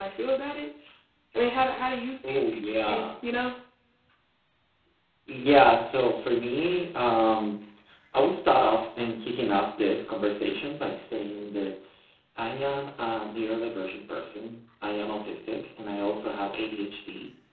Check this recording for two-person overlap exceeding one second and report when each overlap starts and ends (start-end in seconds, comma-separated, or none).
none